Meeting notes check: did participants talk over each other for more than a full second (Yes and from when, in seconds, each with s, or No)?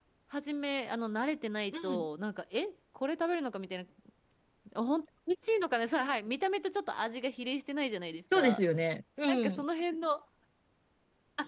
No